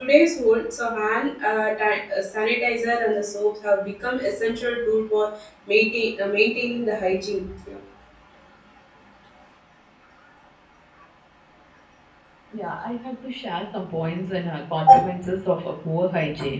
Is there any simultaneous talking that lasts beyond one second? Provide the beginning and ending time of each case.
none

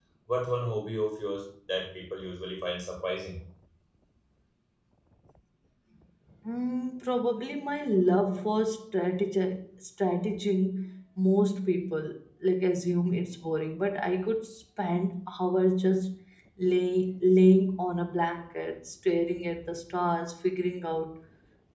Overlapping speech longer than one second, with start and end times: none

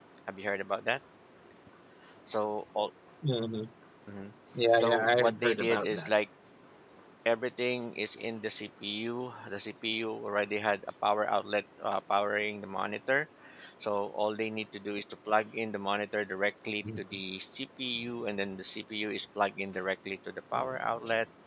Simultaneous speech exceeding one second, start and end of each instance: 4.8-6.1

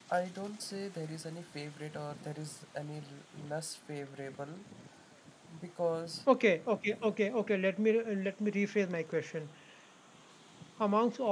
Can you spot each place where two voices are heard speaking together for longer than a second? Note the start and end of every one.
none

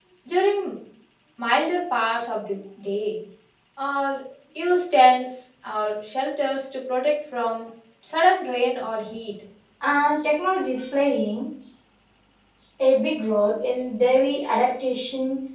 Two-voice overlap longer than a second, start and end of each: none

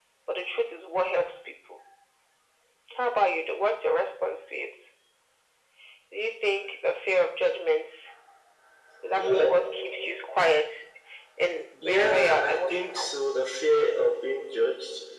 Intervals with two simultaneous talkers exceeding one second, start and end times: 11.8-13.1

